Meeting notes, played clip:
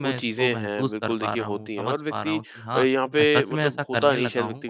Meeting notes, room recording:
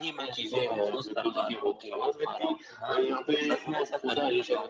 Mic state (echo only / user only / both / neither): echo only